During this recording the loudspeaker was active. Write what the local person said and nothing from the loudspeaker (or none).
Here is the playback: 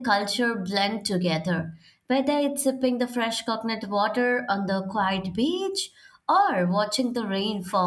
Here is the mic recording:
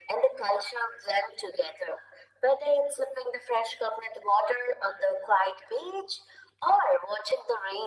none